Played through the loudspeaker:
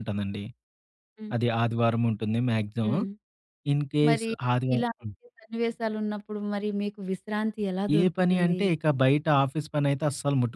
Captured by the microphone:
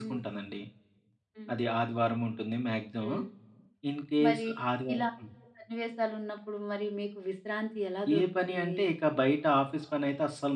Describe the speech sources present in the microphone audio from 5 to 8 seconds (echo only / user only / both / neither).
echo only